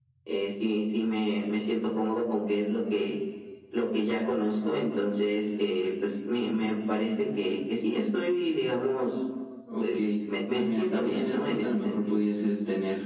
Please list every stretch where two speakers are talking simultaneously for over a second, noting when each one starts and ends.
10.5-11.9

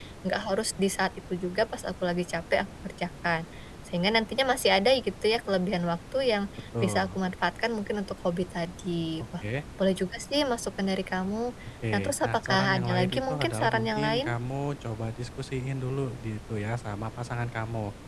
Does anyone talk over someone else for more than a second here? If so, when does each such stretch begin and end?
11.9-14.3

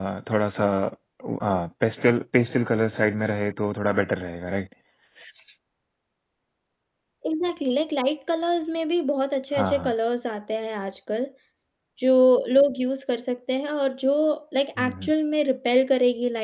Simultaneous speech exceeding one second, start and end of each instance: none

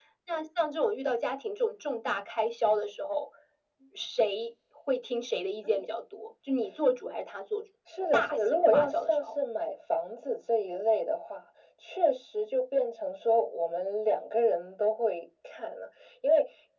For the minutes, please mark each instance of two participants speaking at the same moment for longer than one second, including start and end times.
8.1-9.3

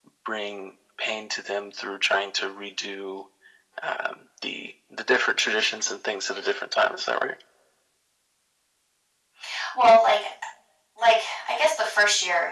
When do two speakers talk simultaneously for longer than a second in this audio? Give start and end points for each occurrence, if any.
none

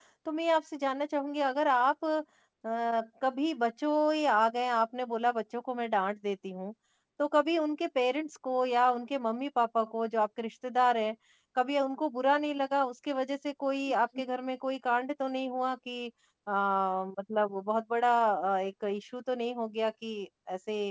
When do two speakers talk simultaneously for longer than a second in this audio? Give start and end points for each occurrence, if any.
none

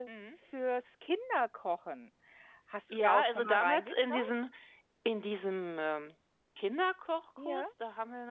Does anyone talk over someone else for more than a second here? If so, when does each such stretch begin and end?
2.9-4.3

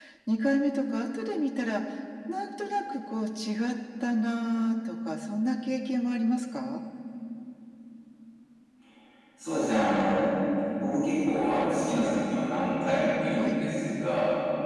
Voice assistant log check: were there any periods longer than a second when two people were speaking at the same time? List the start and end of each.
none

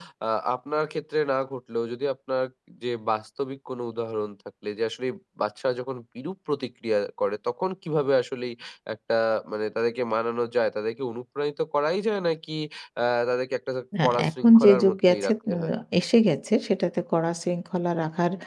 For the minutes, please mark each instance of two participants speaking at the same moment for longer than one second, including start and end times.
14.0-15.6

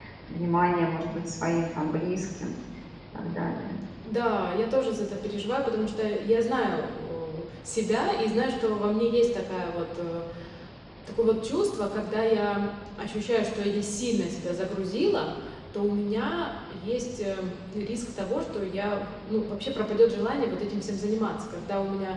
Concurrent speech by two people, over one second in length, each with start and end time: none

